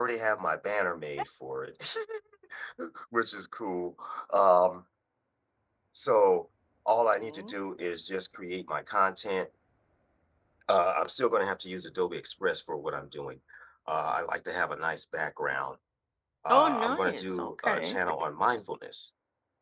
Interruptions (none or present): present